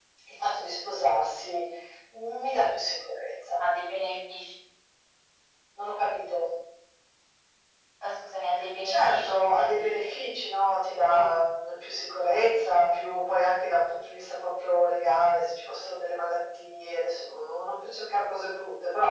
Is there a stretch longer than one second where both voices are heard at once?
Yes, from 8.8 s

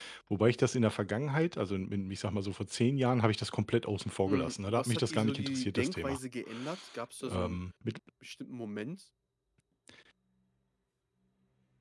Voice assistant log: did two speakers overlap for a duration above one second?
Yes, from 4.3 s

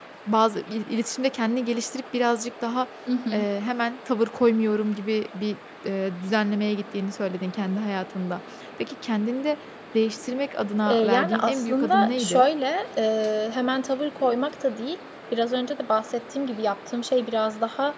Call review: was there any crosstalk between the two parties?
Yes, from 10.9 s

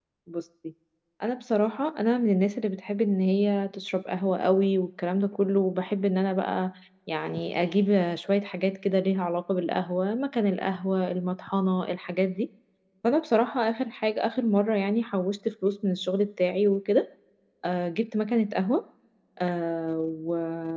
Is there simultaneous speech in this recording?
No

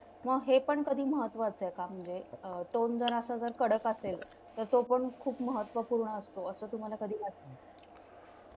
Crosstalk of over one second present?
No

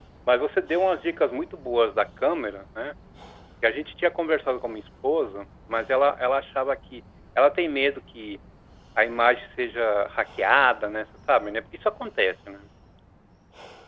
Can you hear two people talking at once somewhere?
No

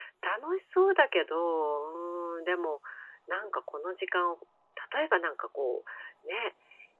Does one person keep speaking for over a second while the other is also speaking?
No

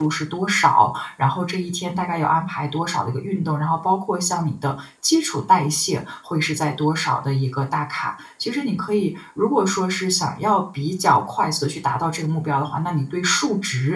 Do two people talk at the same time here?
No

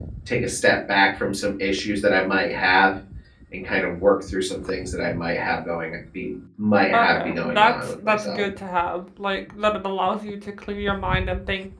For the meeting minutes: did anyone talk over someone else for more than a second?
Yes, from 6.9 s

